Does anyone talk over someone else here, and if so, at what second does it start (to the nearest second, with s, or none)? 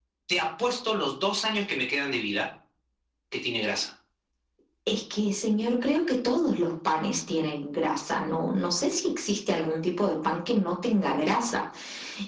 none